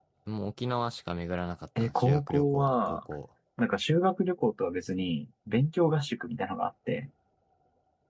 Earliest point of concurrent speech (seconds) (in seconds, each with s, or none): 1.8 s